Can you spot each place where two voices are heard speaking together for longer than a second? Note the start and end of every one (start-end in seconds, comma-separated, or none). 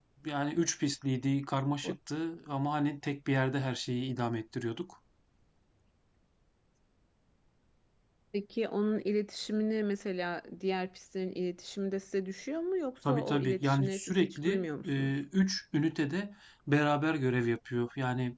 13.1-15.1